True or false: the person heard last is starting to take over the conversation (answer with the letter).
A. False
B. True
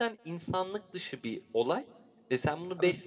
A